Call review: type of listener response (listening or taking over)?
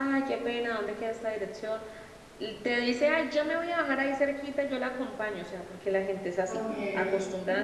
listening